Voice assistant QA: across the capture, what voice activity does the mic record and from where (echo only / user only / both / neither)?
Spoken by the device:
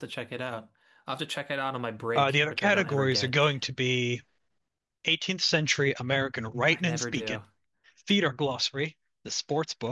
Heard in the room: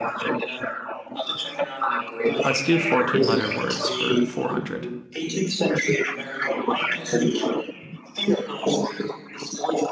both